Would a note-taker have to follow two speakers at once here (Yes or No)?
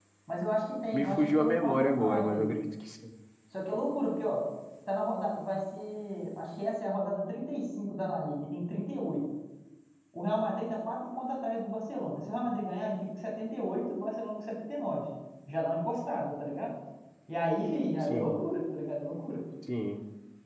Yes